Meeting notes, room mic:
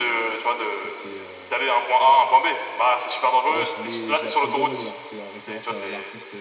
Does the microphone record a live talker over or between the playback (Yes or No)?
Yes